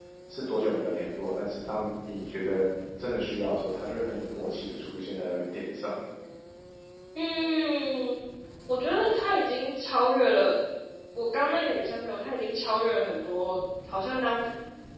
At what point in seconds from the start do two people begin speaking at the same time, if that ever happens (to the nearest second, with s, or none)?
none